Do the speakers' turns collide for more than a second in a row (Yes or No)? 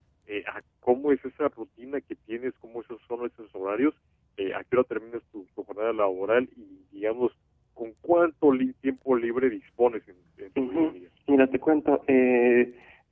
No